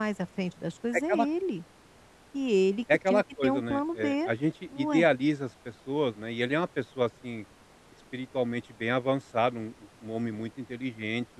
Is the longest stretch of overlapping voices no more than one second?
No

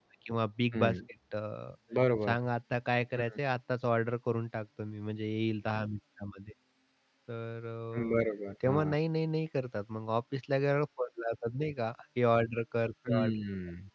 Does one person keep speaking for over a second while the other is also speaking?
No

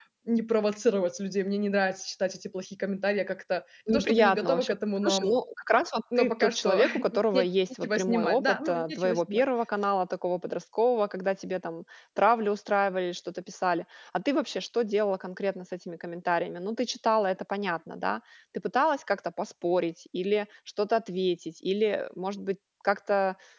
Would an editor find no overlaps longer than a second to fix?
No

